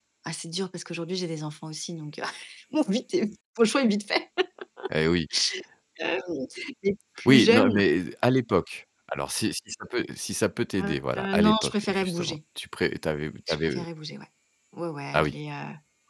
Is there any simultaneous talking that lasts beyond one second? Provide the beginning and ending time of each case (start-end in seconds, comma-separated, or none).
10.8-12.4